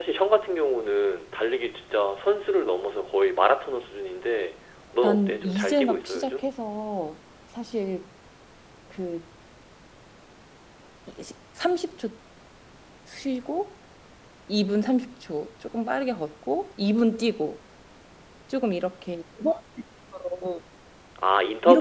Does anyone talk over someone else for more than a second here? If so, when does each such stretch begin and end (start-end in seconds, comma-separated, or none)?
5.0-6.5